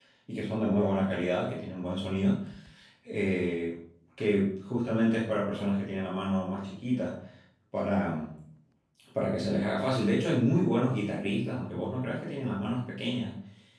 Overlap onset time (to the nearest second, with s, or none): none